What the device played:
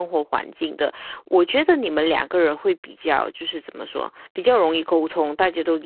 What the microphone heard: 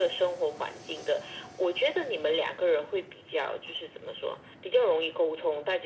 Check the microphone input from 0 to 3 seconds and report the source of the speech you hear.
echo only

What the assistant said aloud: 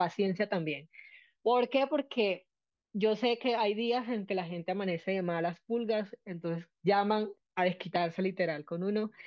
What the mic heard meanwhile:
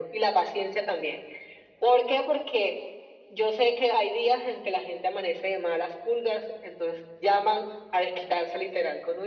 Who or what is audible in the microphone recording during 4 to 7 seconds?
echo only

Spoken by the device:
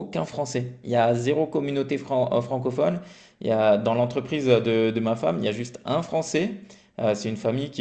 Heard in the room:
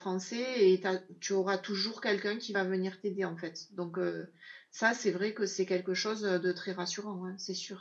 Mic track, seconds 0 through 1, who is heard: user only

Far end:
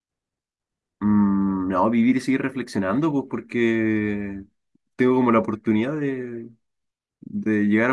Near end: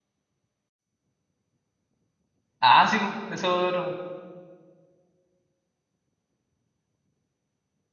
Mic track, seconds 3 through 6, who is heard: user only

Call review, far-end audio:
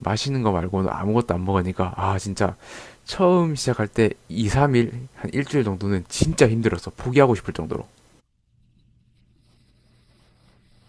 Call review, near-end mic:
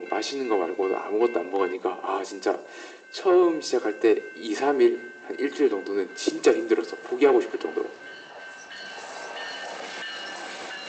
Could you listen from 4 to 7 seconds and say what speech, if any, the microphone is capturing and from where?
echo only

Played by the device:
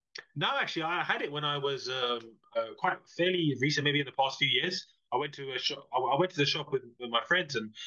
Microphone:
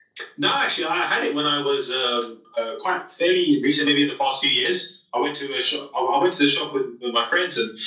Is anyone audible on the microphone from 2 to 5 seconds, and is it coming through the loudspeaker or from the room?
echo only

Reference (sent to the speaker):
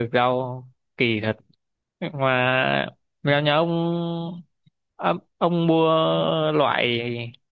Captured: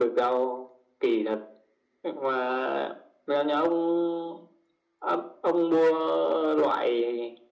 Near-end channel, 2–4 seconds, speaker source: echo only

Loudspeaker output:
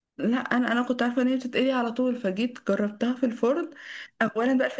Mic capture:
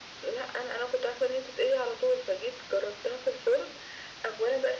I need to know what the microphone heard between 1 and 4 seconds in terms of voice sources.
echo only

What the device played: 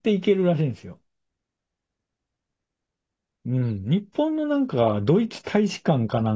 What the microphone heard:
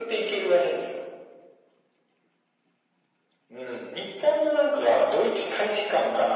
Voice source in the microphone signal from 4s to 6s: echo only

